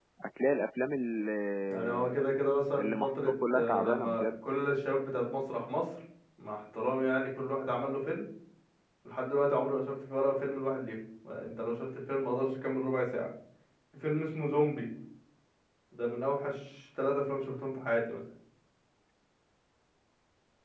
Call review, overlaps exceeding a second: present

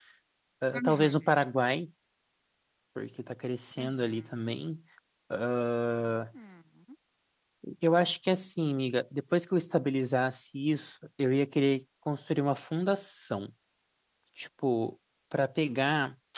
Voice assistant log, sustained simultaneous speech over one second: none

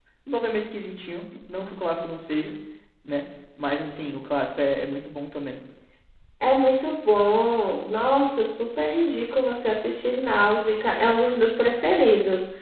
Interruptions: none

